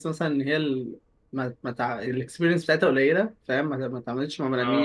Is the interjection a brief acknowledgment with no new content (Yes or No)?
Yes